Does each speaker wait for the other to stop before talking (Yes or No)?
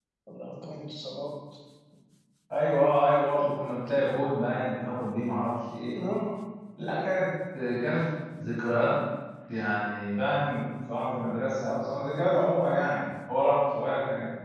Yes